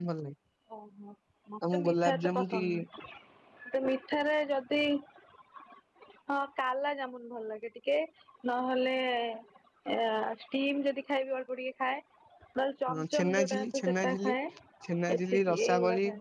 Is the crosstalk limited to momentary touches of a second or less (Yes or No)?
No